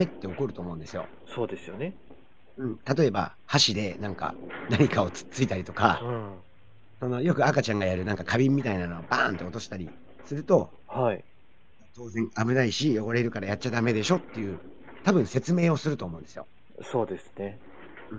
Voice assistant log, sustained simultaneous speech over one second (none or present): none